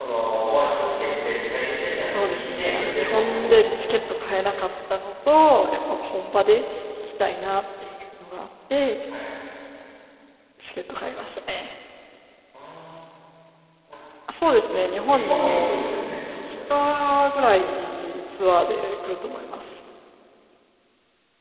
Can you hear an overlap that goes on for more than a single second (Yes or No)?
Yes